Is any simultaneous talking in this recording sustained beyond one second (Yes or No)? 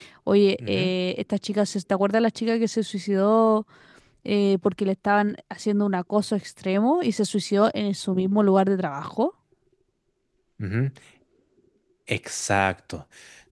No